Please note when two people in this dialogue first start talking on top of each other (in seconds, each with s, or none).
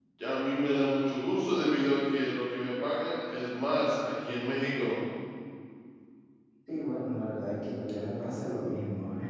none